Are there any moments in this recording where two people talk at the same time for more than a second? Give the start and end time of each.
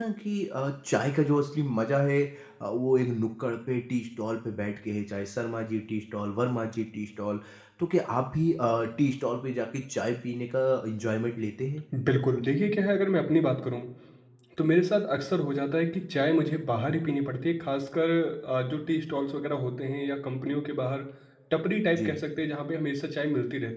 none

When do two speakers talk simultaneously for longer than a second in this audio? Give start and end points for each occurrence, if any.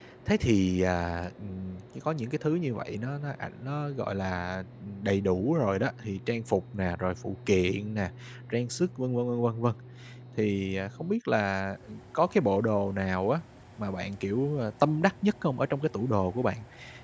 none

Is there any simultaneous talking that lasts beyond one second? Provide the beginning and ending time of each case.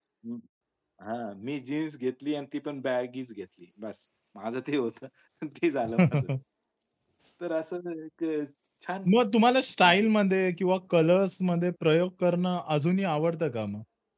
none

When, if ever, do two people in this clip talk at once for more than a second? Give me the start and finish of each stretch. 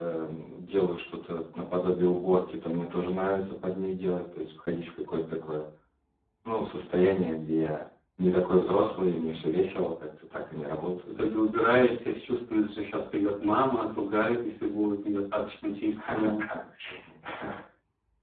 none

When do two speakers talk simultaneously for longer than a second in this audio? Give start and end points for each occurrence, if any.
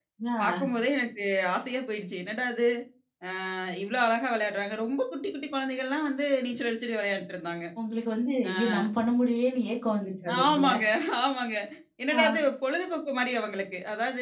none

